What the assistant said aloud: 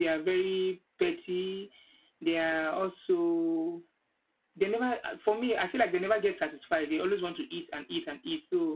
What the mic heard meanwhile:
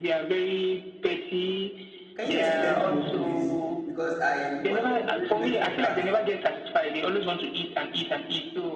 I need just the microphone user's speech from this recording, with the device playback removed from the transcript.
can you explain more, please? Because I wanted really going for cats.

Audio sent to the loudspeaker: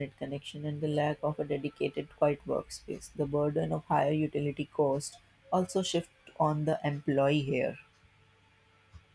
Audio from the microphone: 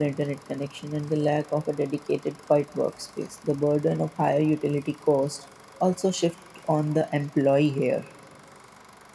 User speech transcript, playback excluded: none

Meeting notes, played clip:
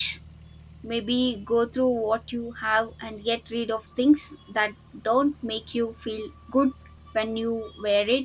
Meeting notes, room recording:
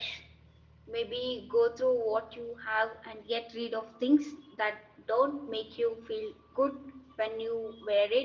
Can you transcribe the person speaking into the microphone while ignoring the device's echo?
none

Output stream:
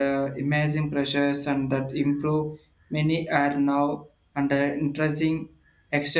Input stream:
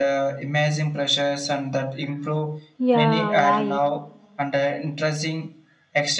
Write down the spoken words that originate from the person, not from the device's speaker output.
Yeah, right.

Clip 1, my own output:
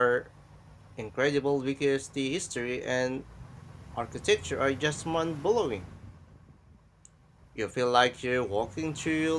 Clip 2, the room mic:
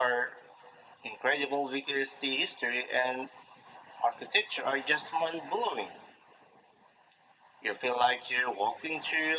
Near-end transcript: none

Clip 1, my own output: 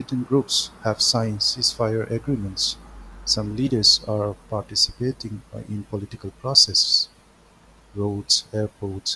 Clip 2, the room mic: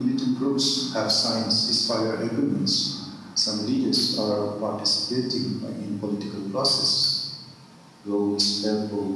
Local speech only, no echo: none

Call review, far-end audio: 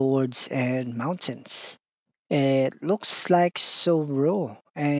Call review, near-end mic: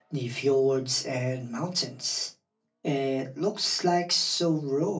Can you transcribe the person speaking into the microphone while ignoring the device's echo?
none

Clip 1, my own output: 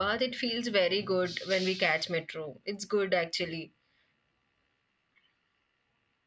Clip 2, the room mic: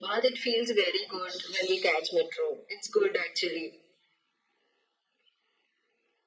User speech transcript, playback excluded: none

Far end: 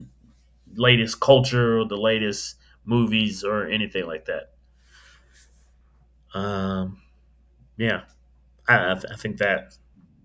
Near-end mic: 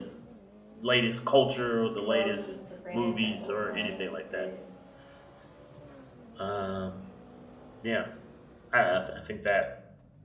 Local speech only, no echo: closest friend of mine, but

